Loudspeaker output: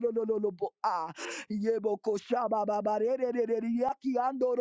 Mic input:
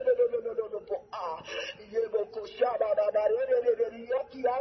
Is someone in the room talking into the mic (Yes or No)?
No